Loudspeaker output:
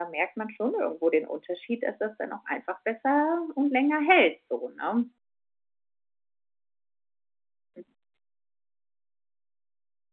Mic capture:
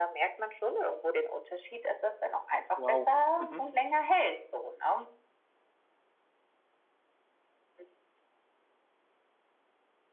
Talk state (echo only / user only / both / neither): both